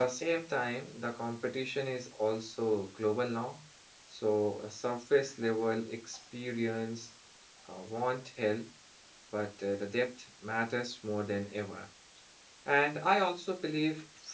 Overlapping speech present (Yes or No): No